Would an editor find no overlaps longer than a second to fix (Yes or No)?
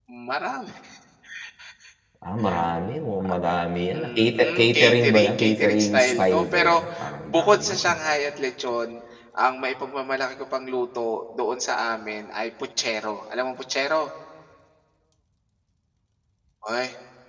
No